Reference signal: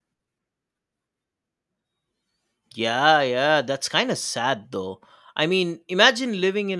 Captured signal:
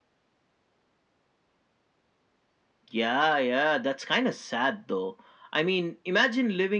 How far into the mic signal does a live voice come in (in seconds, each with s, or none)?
none